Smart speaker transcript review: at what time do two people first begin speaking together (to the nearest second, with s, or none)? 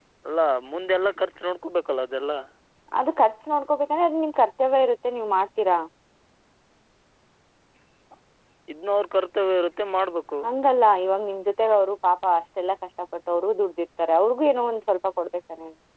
none